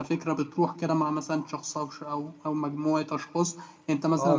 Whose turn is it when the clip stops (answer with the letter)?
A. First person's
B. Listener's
B